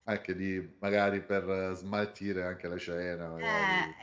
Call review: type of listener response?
taking over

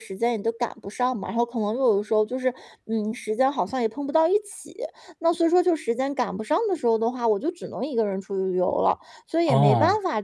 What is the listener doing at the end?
listening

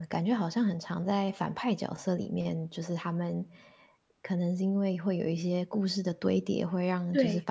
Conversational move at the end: listening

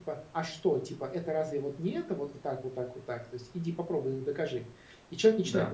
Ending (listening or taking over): listening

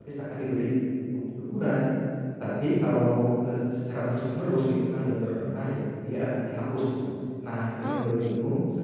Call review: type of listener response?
listening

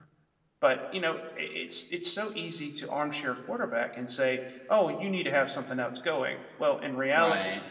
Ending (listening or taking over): listening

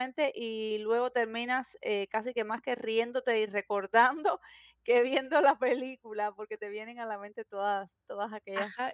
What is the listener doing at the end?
taking over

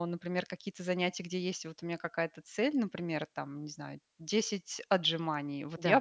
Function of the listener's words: taking over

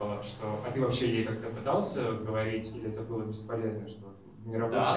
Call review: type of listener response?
taking over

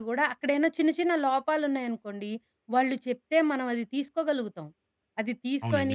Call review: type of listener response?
listening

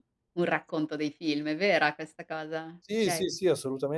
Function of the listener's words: taking over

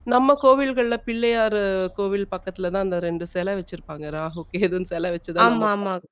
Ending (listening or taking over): taking over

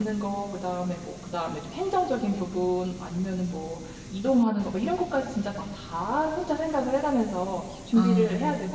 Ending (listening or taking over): listening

